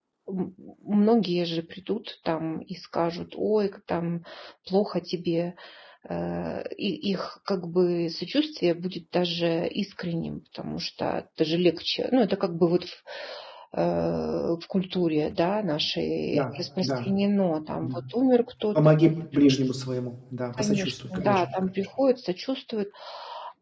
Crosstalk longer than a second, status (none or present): present